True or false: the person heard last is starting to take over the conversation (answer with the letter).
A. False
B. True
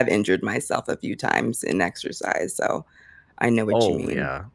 B